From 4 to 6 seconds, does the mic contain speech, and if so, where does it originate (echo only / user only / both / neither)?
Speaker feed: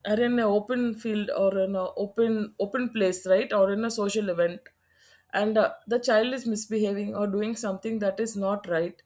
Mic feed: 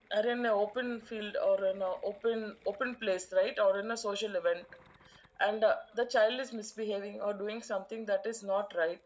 echo only